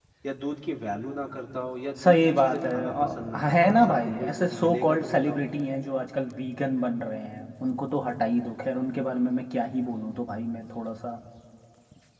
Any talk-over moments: Yes, from 2.0 s

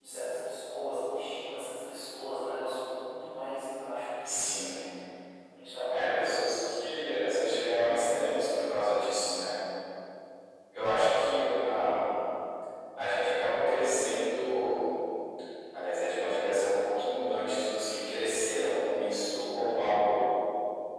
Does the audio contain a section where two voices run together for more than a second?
No

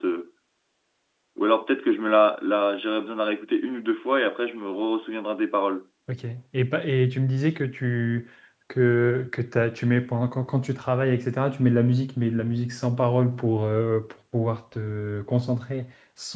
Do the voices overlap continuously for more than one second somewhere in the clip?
No

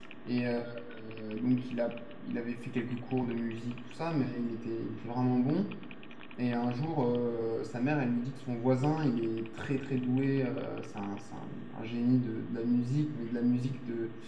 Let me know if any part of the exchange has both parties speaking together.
No

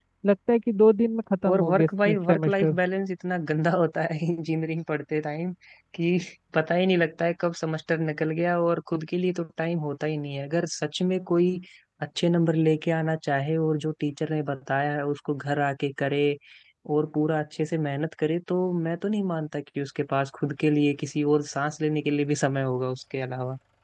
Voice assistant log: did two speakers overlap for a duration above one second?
Yes, from 1.4 s

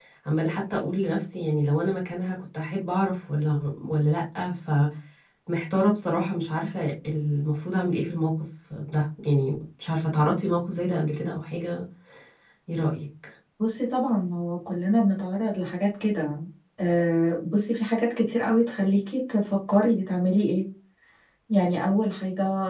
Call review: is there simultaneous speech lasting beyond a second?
No

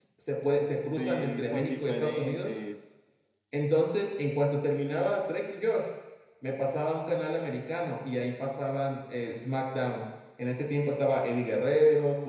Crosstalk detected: Yes, from 1.0 s

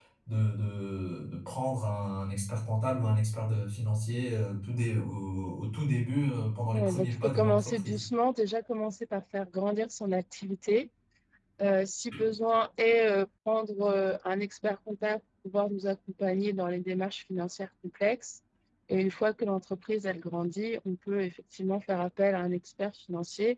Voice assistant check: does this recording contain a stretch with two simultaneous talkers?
Yes, from 6.7 s

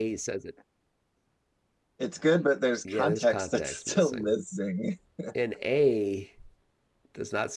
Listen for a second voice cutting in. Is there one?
Yes, from 2.8 s

